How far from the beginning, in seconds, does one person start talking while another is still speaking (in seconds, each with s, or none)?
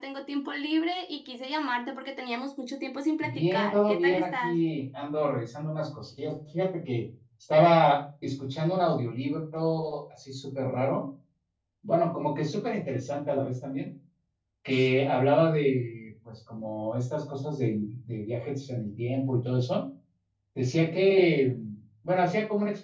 3.2 s